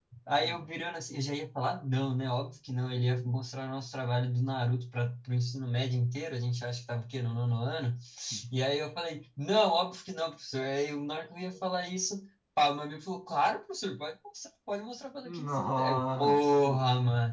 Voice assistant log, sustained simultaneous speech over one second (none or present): present